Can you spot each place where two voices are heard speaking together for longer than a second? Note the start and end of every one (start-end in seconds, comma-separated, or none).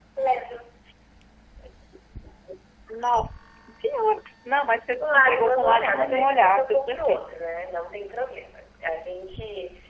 5.0-7.2